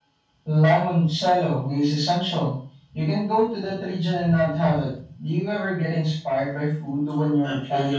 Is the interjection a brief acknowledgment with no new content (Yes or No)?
No